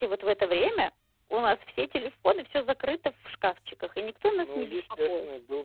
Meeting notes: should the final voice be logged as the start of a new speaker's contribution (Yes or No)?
Yes